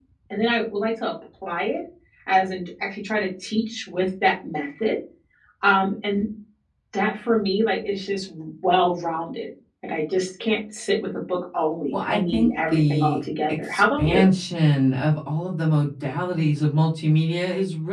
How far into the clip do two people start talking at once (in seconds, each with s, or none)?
11.9 s